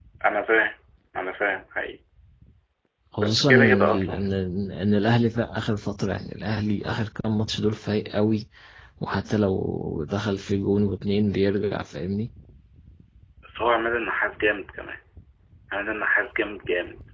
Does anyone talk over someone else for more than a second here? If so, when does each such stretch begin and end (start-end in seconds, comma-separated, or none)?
3.2-4.4